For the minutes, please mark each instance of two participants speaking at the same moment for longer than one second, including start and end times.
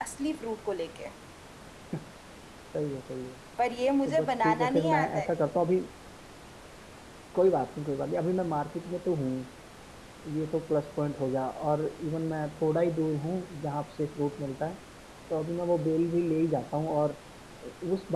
4.0-5.4

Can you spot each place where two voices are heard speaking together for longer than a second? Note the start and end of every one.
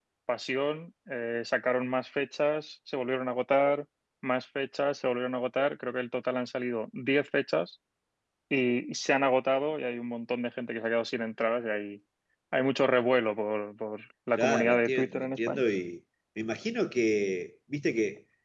14.4-15.6

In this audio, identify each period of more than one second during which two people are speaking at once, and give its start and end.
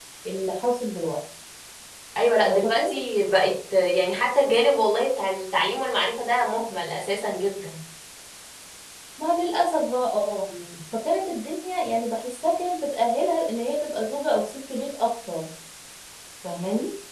none

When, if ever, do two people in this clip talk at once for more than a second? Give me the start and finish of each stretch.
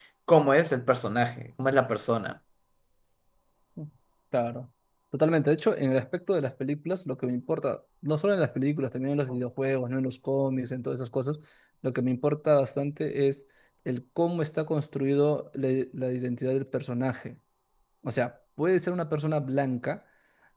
none

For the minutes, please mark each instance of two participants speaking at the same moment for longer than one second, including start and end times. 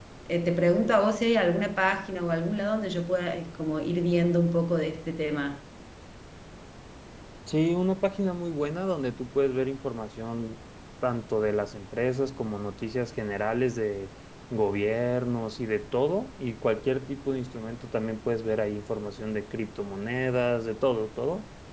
none

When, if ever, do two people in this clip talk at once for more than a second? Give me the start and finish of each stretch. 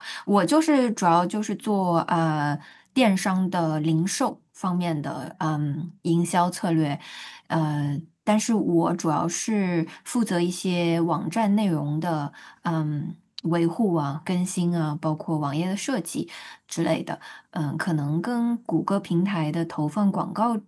none

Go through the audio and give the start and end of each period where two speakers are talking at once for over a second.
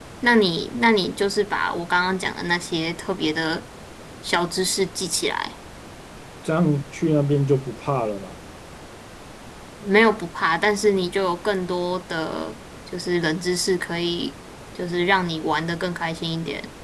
none

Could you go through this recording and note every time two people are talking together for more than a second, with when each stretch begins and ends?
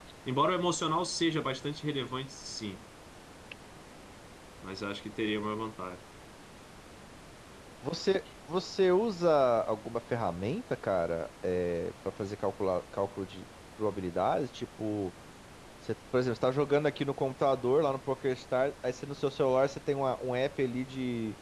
none

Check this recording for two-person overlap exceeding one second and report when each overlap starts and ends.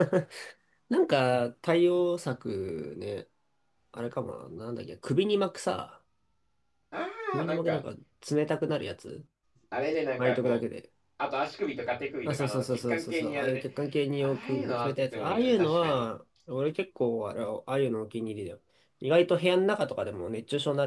12.2-13.6, 14.2-16.1

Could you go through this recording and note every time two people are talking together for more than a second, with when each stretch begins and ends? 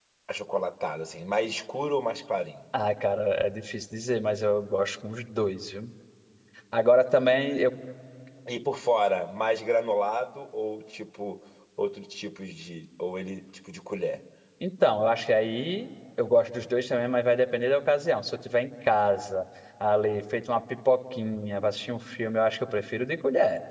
none

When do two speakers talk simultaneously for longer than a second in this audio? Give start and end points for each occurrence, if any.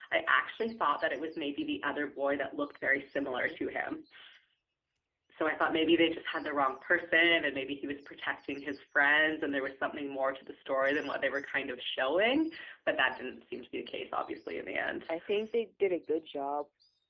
none

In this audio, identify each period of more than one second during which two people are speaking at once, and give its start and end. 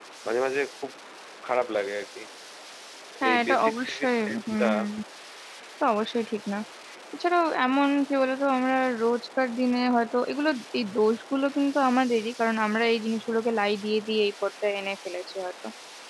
3.3-4.7

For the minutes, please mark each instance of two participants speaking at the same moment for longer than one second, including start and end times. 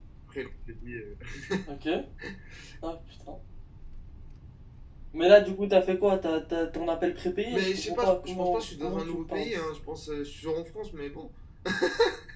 7.5-9.5

